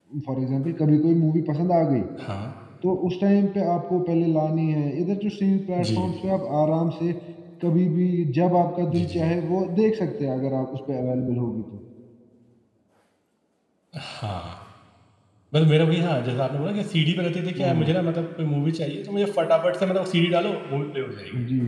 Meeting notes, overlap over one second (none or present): none